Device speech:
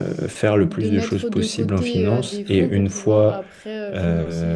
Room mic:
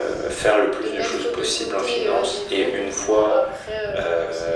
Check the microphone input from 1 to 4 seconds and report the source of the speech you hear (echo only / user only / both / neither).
echo only